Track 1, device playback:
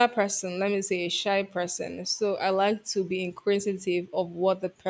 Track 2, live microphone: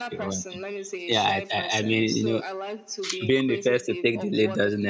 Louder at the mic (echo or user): user